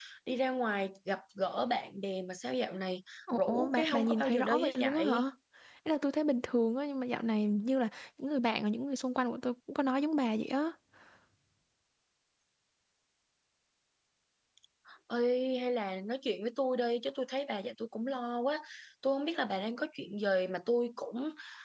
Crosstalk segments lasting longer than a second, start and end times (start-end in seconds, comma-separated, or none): 3.3-5.2